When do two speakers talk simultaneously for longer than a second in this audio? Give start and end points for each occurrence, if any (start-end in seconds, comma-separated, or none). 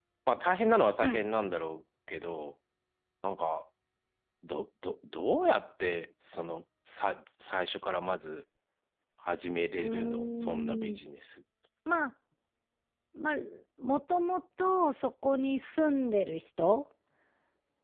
9.8-11.0